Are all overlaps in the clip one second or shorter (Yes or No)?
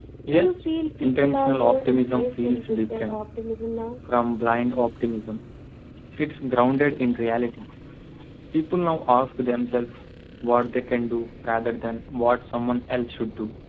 No